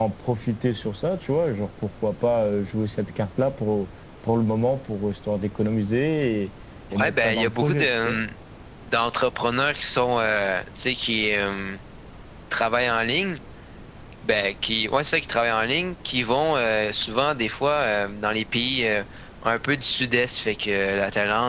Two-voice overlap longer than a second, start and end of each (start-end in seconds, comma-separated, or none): 7.0-8.2